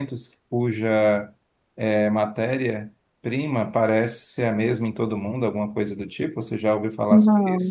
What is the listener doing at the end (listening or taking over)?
taking over